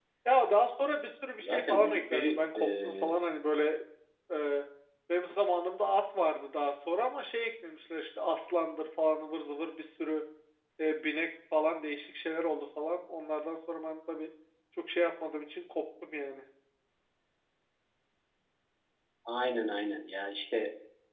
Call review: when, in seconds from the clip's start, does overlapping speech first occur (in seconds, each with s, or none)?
1.4 s